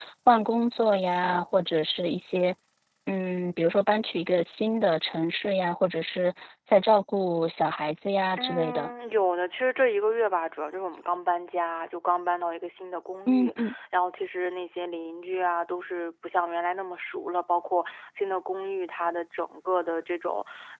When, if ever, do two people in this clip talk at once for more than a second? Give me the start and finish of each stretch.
none

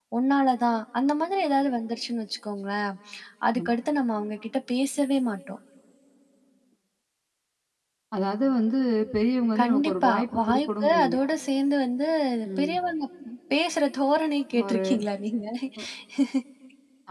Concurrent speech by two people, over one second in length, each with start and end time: 9.6-11.2

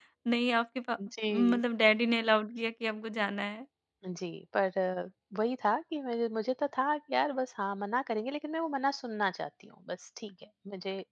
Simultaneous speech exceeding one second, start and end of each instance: none

